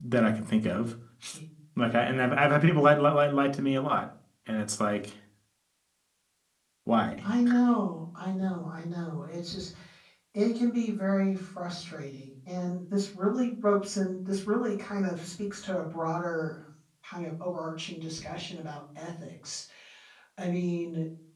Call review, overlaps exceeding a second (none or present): none